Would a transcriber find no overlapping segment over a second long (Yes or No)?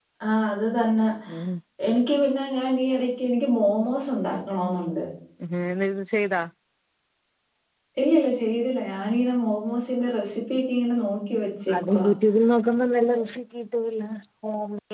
Yes